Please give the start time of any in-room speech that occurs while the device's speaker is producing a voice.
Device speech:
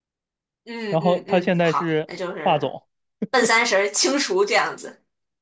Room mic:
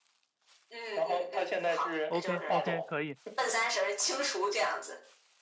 2.1 s

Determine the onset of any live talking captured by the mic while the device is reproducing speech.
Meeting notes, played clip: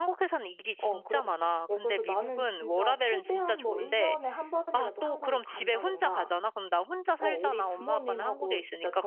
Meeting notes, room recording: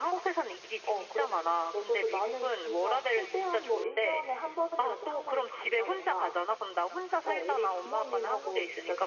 none

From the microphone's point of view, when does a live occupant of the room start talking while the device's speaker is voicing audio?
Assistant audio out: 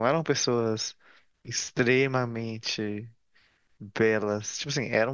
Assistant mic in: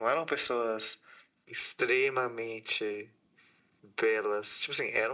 none

